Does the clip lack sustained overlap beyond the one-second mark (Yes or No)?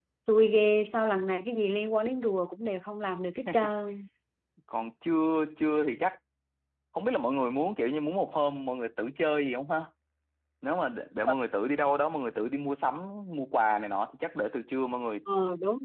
Yes